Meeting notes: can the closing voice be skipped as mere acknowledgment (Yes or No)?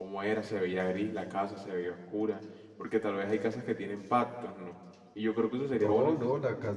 No